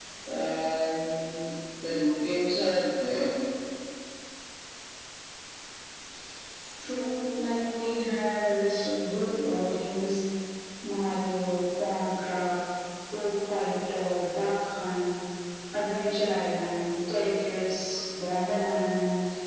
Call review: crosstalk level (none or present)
none